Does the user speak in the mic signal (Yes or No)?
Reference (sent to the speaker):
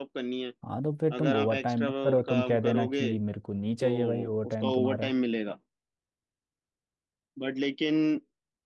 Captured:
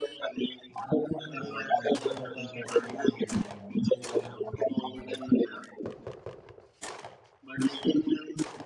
No